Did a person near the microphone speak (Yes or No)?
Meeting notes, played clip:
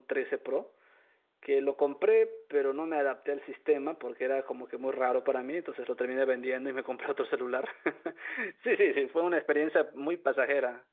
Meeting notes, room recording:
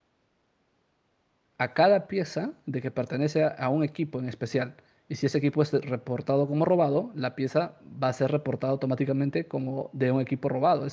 Yes